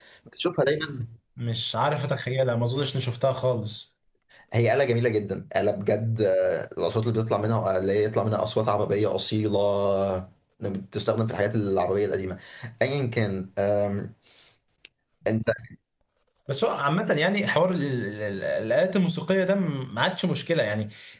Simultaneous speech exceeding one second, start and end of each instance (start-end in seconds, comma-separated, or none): none